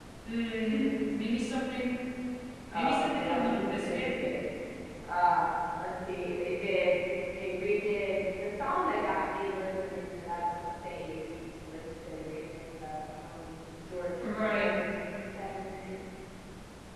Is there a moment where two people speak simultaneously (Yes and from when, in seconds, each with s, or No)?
Yes, from 2.7 s